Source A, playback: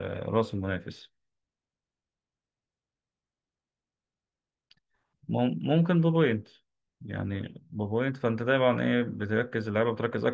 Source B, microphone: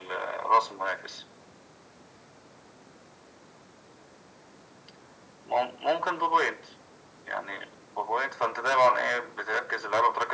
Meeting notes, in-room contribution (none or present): none